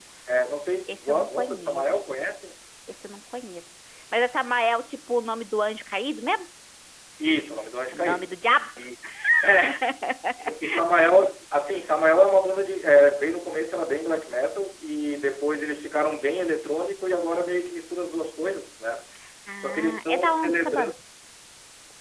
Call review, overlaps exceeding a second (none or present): present